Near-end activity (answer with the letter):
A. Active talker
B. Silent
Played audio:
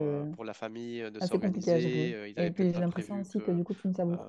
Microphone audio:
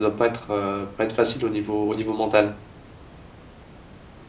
A